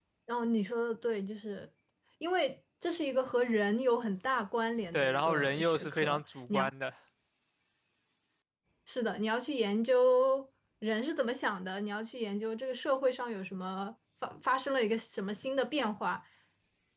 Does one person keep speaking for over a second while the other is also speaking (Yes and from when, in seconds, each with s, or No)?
Yes, from 4.9 s